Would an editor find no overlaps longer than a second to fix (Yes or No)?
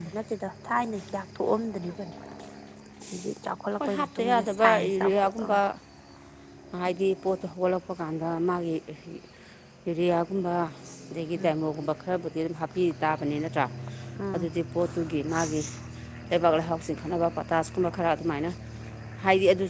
No